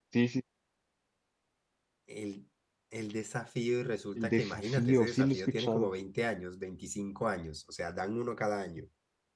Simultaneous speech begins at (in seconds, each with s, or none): 4.2 s